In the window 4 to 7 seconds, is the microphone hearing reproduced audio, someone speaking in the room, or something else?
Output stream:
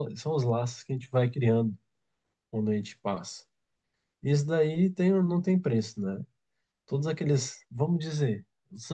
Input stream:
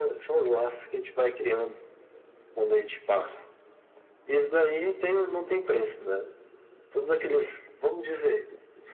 echo only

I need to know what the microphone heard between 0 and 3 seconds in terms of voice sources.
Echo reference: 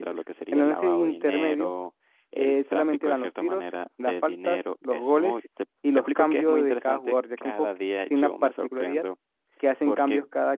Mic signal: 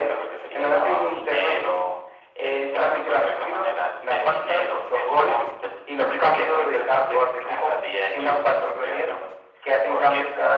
echo only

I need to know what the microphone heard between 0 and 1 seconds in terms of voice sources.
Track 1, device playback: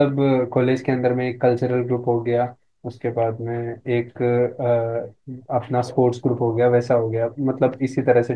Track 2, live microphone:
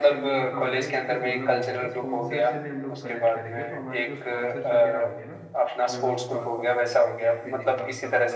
both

